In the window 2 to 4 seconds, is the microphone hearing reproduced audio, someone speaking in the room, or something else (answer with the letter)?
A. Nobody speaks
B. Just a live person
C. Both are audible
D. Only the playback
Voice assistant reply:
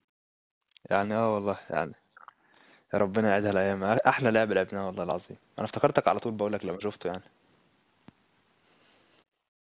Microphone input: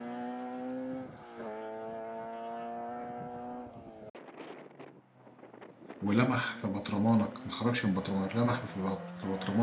A